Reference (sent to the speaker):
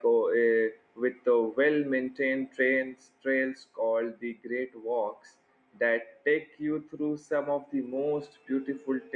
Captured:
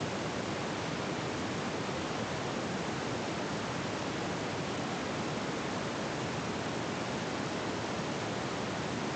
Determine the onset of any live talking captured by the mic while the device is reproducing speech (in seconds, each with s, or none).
none